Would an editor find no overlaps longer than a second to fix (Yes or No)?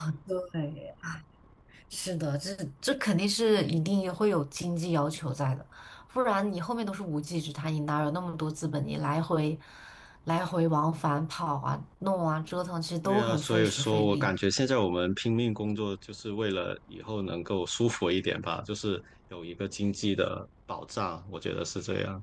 No